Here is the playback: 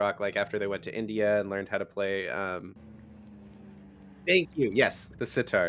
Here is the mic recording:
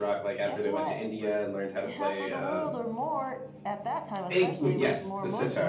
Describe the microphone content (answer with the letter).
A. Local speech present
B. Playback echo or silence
A